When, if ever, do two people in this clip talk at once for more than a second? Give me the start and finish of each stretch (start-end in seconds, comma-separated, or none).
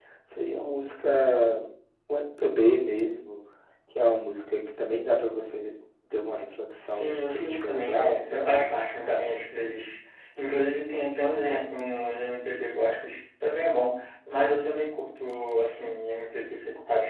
6.9-8.7